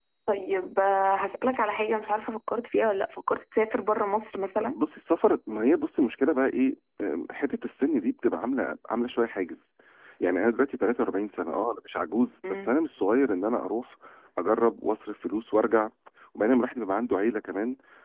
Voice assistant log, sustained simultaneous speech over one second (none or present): none